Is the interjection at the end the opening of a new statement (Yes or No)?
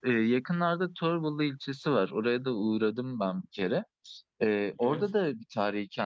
No